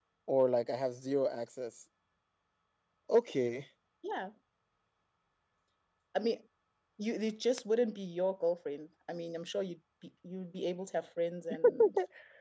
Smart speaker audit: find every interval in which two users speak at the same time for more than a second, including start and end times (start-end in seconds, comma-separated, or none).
none